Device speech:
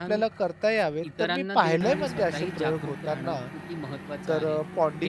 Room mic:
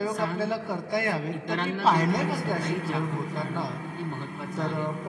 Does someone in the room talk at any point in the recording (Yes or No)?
No